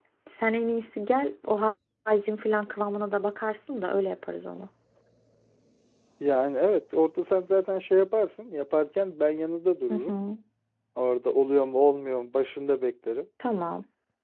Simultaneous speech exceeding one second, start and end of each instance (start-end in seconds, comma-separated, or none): none